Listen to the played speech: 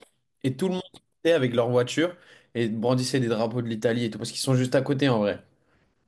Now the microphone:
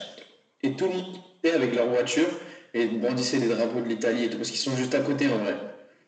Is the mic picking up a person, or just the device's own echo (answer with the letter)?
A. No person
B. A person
A